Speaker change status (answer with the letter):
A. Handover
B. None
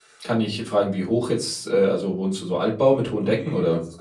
A